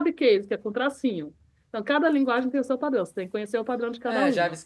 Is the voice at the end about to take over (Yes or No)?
Yes